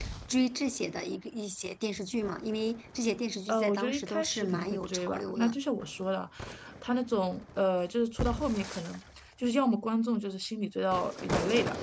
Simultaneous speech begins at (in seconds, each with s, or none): 3.5 s